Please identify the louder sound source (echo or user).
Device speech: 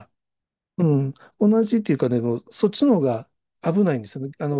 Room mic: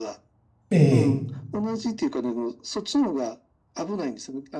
user